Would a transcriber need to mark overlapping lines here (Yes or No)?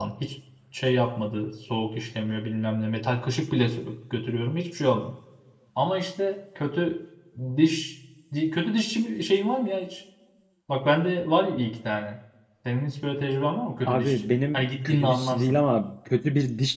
Yes